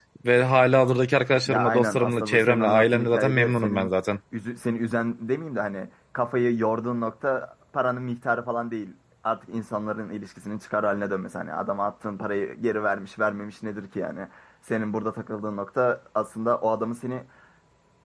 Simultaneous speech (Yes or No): Yes